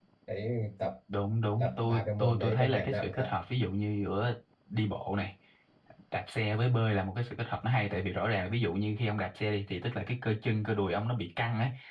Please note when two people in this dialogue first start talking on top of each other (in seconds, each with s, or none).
1.6 s